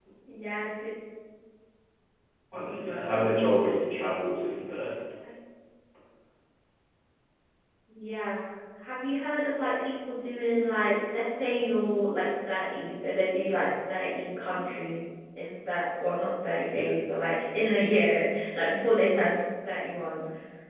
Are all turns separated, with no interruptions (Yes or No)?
No